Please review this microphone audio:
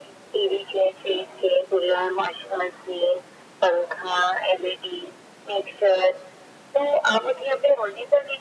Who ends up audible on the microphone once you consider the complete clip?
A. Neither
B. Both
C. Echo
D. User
C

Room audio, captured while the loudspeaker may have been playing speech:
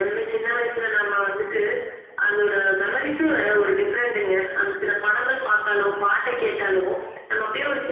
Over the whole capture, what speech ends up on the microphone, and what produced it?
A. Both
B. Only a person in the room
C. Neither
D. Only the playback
D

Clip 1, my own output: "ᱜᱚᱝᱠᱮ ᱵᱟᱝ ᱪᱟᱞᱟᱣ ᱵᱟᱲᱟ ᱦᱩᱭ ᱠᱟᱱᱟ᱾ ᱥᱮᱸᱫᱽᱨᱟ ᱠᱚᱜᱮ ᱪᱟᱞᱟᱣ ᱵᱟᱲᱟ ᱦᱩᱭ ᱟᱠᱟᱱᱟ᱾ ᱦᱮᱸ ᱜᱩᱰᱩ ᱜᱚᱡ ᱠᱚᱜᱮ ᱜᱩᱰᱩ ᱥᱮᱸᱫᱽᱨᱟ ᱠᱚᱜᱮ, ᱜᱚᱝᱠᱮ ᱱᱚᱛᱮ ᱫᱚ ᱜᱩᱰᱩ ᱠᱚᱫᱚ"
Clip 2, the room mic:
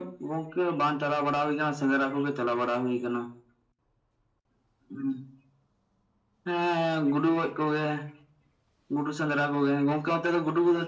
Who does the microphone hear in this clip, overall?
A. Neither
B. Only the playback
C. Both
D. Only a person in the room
B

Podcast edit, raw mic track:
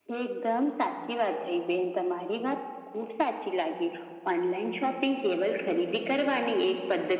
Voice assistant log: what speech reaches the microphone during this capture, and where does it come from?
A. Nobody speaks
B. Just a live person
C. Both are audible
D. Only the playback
D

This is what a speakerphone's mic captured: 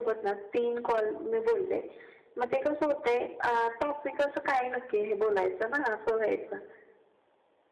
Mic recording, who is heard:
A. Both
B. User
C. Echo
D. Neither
C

